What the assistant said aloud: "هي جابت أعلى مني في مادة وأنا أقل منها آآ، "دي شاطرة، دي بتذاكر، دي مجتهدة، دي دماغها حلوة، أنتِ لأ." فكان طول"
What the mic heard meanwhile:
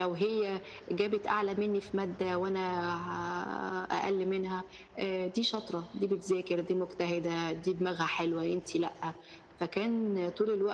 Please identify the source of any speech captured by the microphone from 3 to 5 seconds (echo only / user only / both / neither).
echo only